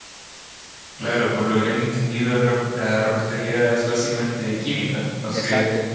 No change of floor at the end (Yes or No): No